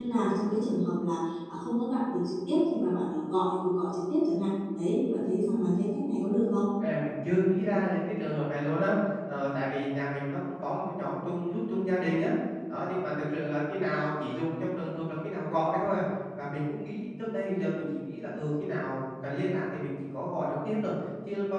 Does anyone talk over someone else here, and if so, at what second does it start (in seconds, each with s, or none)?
none